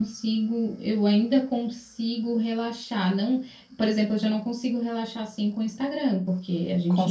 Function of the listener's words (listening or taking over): listening